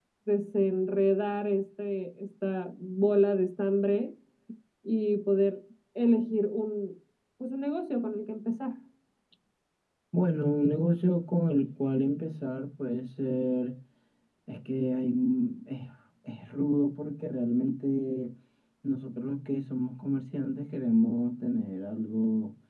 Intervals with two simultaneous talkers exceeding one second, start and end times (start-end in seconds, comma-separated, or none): none